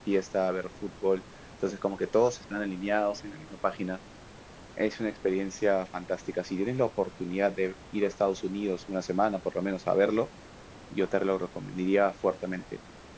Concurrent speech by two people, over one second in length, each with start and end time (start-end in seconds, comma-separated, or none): none